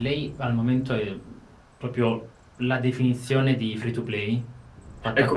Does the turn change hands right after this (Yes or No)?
Yes